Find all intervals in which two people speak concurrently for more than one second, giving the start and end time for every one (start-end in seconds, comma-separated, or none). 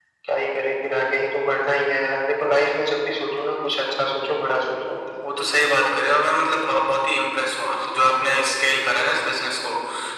none